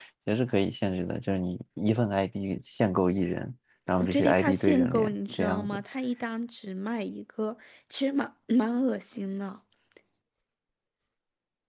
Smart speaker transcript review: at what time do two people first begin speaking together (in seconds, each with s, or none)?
4.0 s